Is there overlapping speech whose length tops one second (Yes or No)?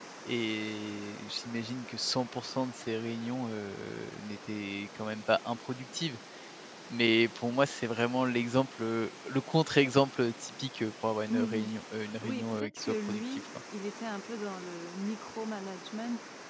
Yes